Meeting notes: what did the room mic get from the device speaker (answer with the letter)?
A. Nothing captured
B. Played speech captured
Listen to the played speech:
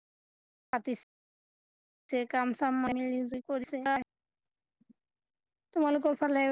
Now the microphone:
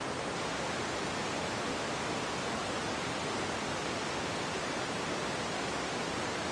A